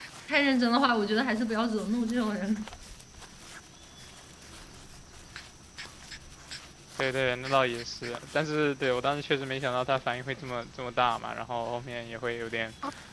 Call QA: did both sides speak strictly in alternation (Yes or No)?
Yes